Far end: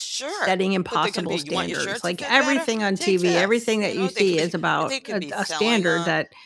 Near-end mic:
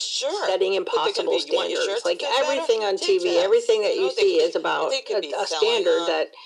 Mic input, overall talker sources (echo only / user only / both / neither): echo only